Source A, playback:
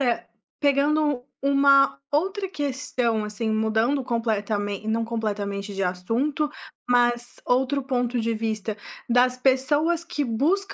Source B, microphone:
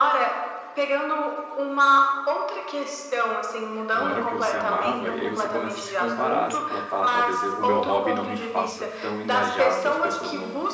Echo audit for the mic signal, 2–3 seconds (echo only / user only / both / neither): echo only